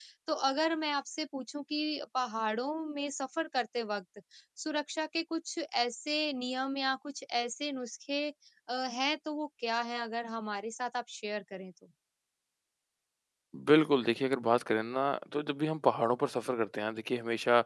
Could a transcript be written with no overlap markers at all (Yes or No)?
Yes